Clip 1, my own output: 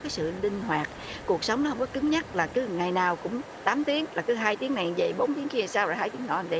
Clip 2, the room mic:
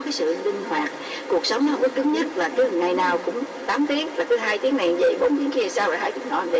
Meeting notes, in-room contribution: present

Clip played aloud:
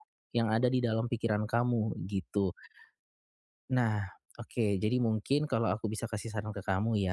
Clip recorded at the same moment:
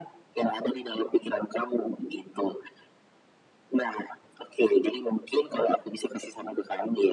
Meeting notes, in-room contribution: none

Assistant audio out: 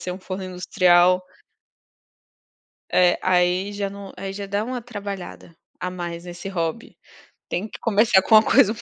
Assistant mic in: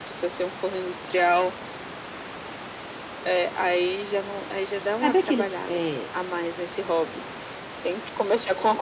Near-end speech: present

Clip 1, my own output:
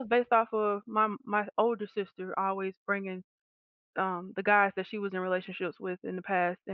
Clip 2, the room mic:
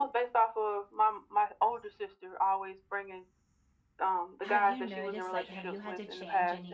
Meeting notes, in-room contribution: present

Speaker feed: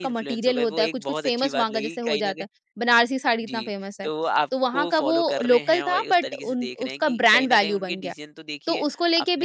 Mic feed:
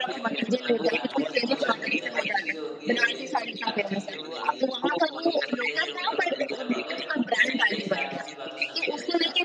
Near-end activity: present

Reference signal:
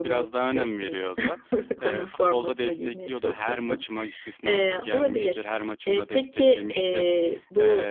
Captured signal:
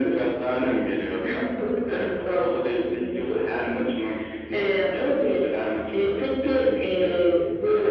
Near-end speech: none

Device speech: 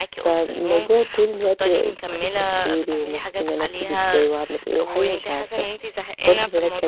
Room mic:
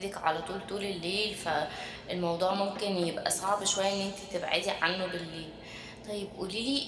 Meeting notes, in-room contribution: present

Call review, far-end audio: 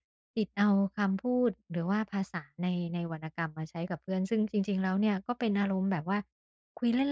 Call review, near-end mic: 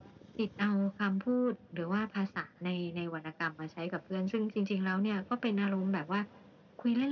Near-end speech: none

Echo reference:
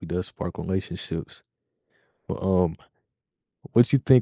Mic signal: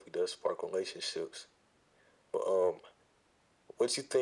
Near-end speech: none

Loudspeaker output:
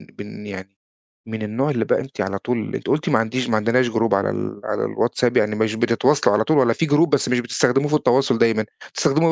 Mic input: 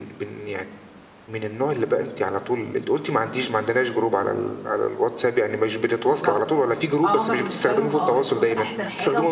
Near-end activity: present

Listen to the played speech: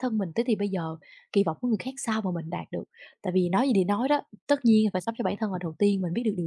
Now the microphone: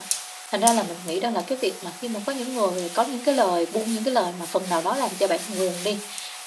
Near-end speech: present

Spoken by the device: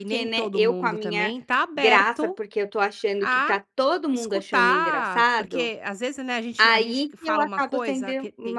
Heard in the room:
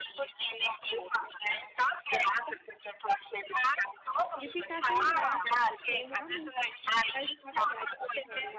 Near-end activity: present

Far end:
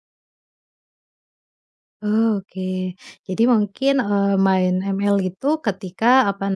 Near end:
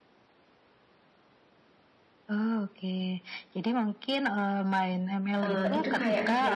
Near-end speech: present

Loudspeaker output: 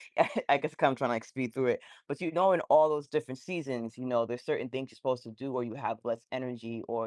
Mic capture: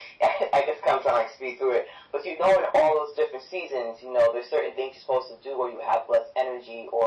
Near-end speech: none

